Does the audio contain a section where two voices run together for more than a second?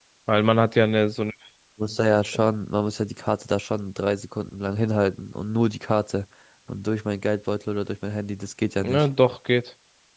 No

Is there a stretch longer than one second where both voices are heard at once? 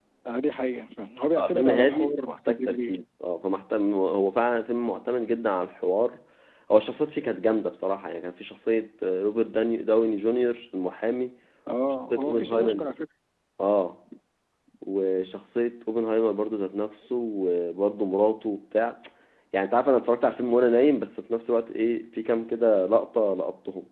Yes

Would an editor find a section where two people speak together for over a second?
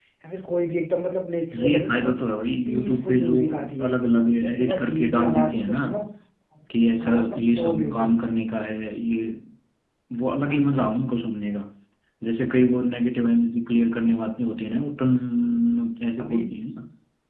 Yes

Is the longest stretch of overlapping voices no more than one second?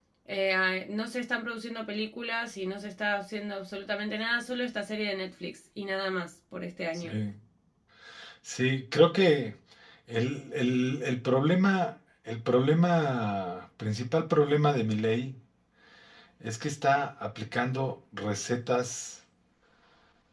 Yes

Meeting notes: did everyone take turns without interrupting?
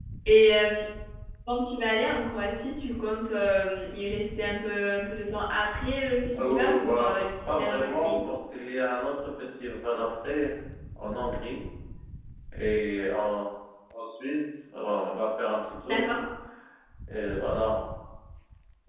No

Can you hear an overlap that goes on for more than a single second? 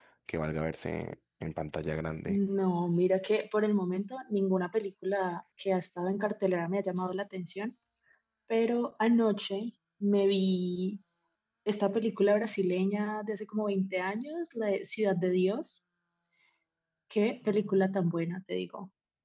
No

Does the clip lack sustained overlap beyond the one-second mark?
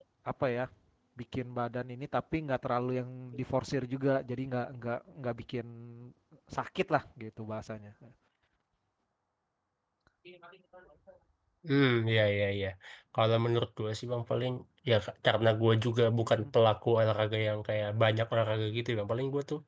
Yes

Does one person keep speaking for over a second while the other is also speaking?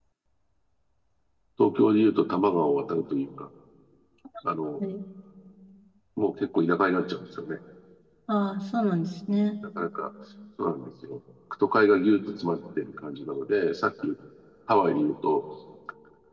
No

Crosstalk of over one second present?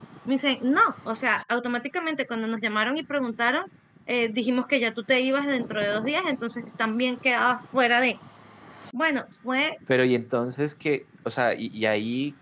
No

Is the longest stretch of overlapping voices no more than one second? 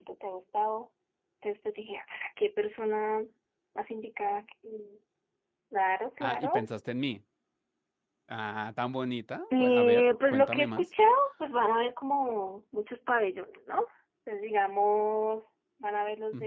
No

